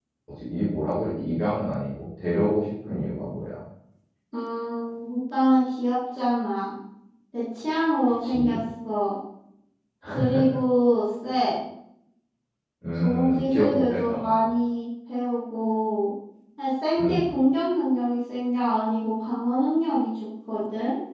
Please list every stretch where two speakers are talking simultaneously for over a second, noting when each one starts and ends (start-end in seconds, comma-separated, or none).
13.0-14.4